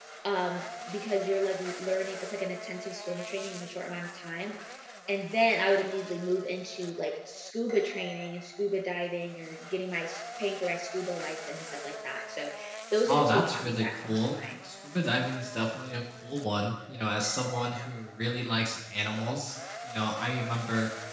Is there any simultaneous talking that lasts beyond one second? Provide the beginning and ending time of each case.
13.1-14.4

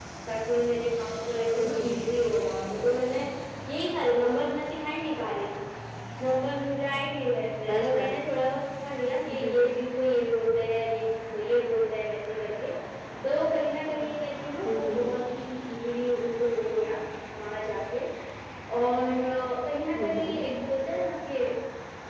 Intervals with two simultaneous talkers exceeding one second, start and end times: none

